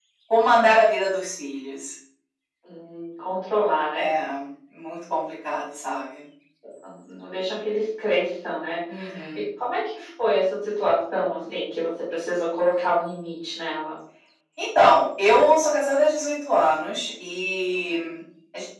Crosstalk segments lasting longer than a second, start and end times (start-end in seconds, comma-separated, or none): none